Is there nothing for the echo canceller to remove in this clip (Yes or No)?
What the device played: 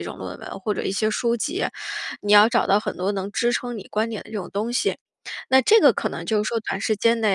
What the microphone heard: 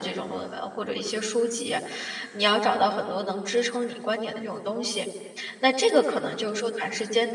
No